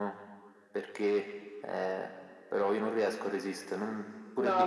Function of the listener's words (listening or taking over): taking over